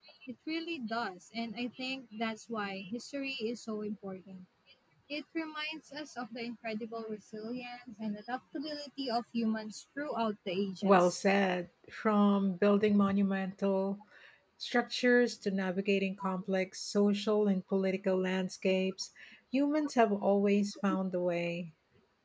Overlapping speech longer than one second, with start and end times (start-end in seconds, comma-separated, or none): none